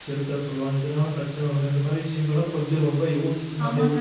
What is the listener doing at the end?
taking over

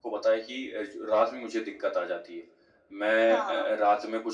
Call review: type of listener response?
listening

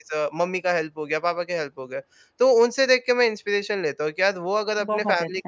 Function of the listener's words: listening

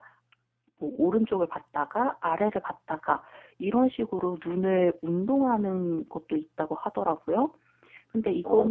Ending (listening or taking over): listening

